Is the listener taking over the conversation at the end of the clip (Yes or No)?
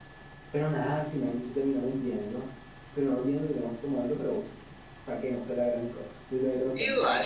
Yes